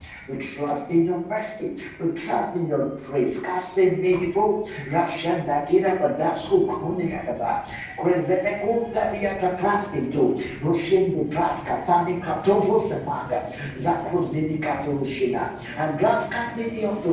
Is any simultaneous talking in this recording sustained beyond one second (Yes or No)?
No